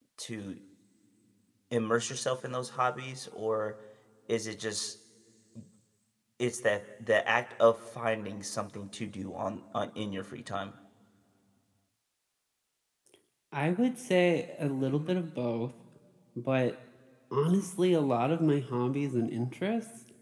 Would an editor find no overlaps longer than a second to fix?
Yes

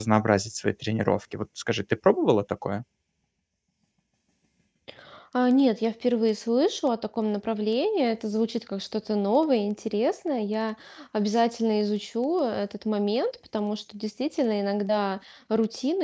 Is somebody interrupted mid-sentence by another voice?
No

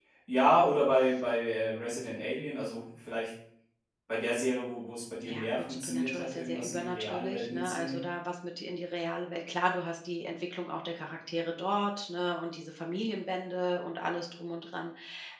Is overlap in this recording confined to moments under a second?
No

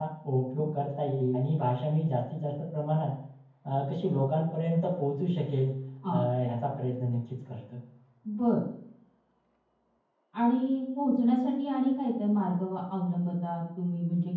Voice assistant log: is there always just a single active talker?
Yes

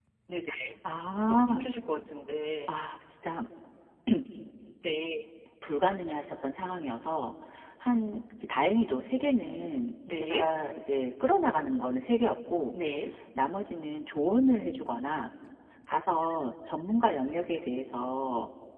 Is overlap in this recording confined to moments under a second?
Yes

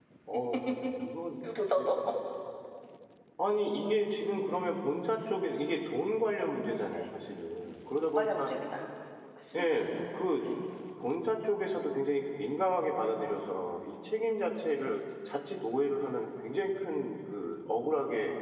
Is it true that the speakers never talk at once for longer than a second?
Yes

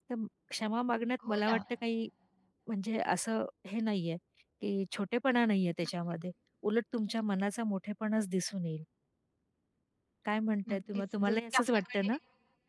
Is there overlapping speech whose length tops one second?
Yes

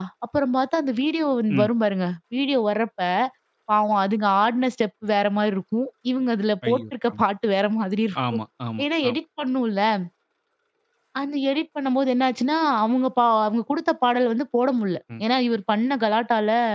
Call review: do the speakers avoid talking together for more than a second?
Yes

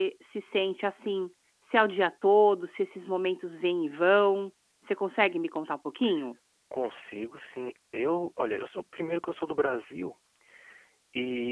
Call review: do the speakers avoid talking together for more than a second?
Yes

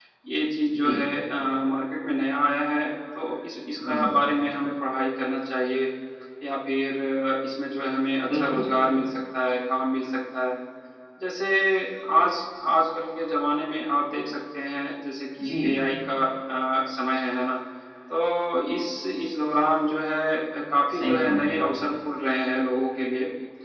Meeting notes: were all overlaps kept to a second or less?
Yes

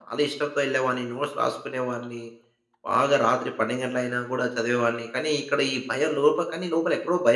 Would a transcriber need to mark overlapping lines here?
No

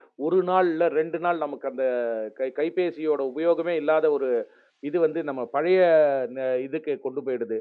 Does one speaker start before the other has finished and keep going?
No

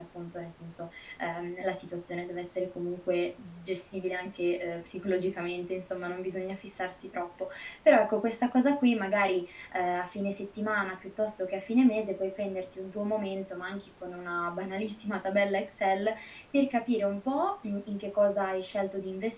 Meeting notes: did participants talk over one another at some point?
No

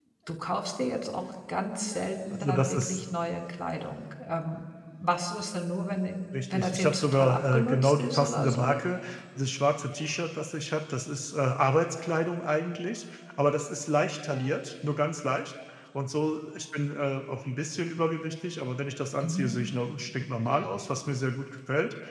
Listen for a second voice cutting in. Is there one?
Yes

